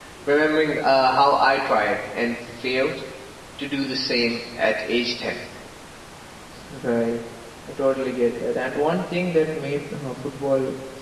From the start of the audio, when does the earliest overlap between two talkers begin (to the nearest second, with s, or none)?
none